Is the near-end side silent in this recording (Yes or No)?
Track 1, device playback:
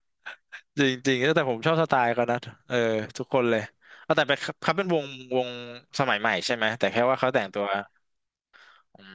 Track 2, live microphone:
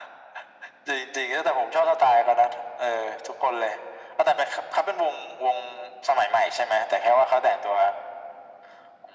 Yes